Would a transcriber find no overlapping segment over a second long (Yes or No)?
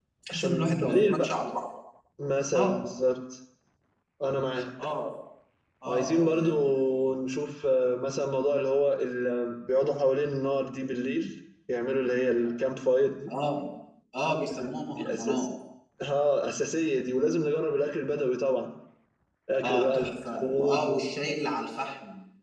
No